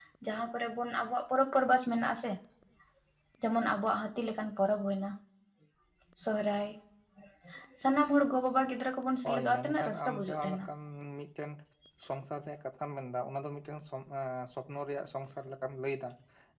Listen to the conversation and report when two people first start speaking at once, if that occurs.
9.2 s

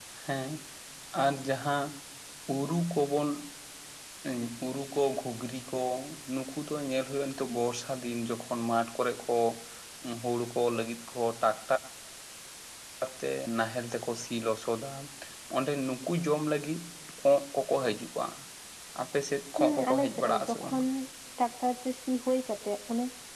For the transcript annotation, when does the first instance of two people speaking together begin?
19.6 s

